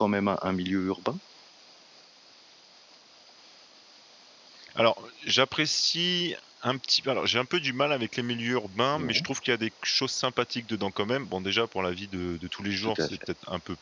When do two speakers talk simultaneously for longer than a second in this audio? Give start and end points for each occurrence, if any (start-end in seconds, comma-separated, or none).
none